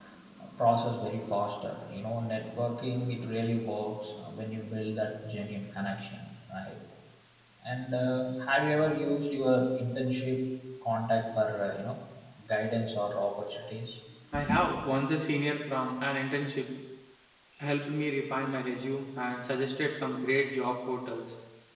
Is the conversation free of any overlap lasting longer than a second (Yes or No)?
Yes